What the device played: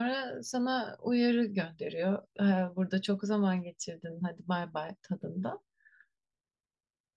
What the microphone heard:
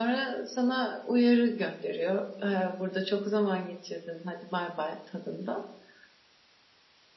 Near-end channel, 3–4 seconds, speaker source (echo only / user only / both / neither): echo only